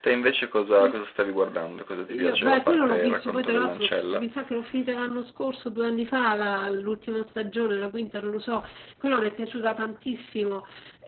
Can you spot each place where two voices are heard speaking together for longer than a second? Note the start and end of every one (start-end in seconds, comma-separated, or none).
2.1-4.2